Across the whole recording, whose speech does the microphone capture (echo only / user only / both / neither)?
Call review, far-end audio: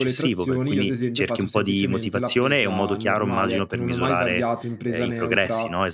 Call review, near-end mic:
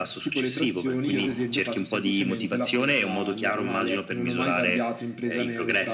echo only